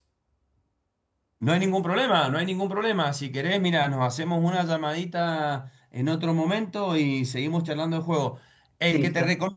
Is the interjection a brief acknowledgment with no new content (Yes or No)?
Yes